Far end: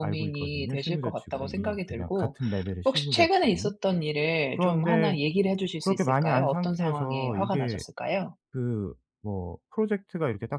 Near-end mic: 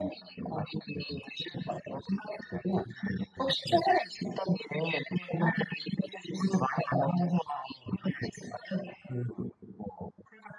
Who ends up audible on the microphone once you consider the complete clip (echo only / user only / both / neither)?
echo only